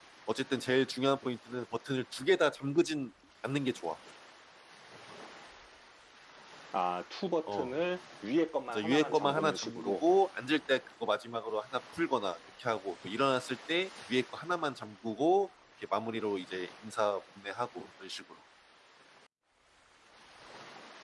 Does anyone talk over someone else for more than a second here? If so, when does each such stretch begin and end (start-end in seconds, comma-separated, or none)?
8.7-10.0